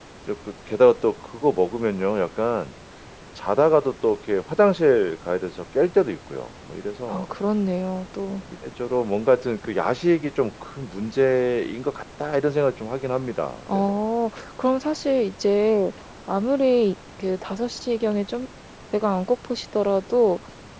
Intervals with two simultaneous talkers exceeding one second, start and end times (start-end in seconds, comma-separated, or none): none